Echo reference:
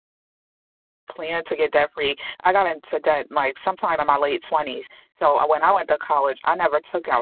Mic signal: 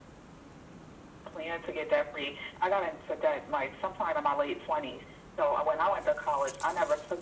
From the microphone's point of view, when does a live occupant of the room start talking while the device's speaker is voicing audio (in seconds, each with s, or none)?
none